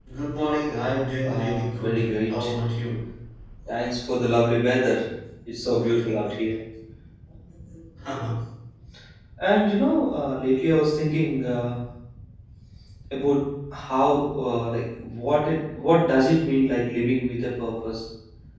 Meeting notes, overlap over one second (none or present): present